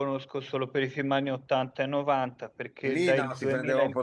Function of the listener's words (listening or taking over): taking over